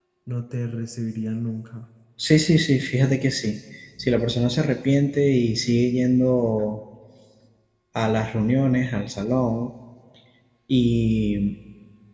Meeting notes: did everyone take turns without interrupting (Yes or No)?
Yes